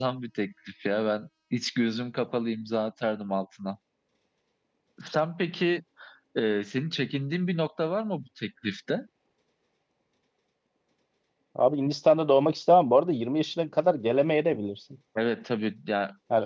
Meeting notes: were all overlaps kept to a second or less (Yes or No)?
Yes